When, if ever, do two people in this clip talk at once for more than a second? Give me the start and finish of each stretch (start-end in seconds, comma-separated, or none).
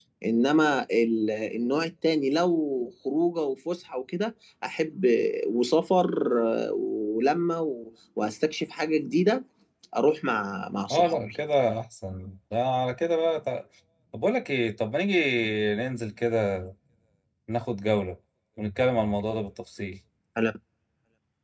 none